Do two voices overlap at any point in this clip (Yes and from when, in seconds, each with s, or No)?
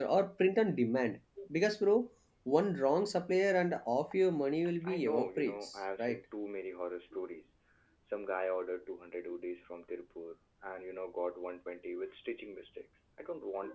Yes, from 4.8 s